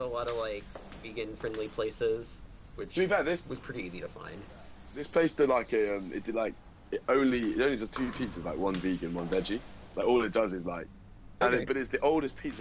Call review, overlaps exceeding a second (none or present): none